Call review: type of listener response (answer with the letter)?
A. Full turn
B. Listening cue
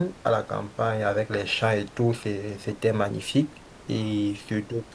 B